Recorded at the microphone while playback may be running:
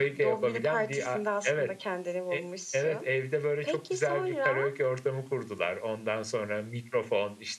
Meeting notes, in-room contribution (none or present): none